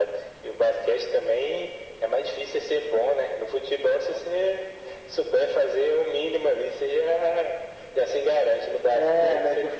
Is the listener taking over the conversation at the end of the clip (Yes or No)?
Yes